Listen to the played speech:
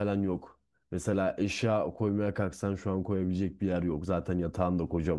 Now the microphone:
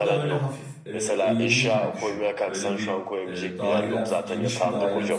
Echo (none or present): present